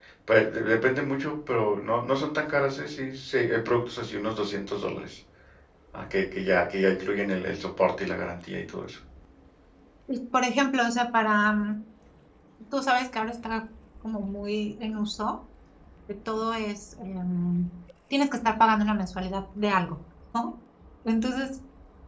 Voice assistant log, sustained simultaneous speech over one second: none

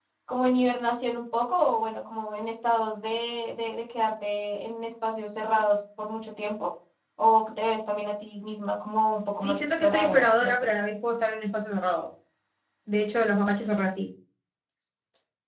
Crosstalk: present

